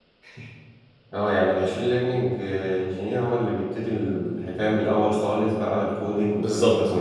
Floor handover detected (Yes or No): Yes